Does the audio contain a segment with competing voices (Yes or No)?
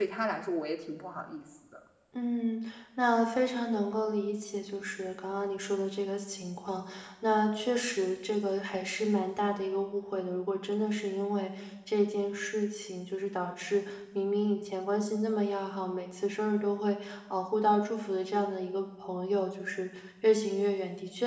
No